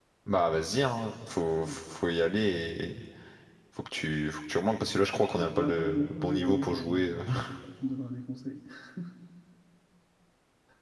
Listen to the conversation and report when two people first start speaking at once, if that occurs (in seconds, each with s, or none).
5.3 s